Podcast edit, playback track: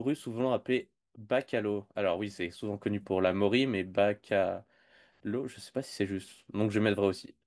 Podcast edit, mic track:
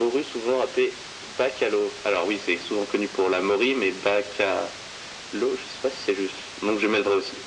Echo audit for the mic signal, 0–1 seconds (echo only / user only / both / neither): echo only